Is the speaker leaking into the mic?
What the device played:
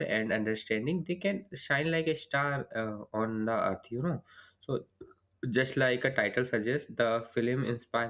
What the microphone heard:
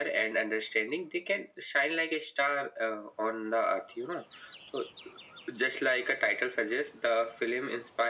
Yes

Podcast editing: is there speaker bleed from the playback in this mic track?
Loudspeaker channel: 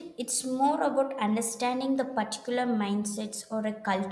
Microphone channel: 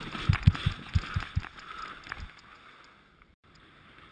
No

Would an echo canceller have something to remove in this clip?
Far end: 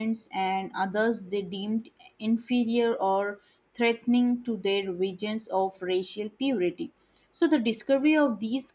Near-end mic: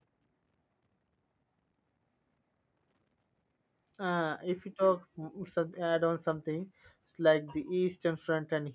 No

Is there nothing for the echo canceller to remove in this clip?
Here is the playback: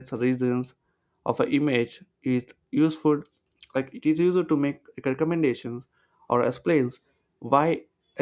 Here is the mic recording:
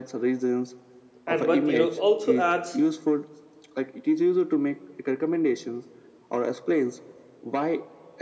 No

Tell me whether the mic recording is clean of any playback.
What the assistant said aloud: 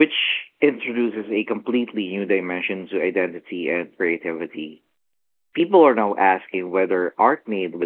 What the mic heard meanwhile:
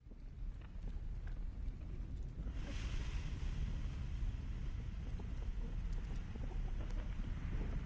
Yes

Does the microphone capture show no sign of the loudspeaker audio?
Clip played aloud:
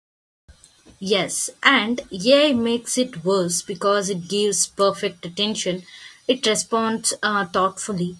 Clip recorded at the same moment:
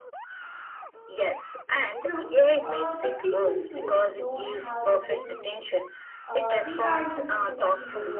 No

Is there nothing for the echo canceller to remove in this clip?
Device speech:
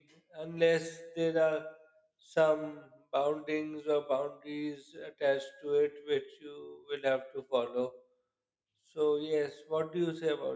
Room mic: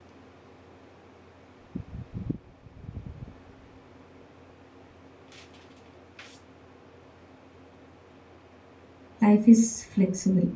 Yes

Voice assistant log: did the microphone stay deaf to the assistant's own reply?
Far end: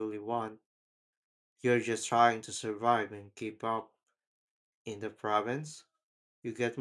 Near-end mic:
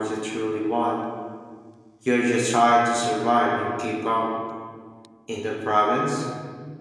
No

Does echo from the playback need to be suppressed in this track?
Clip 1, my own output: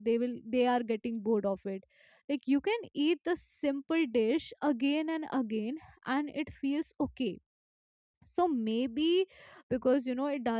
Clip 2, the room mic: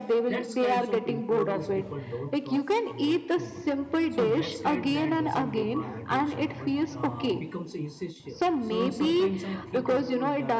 Yes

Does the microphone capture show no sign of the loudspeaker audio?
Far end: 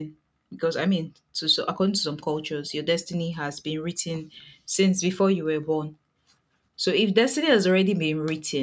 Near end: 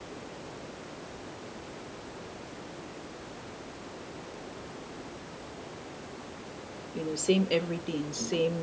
Yes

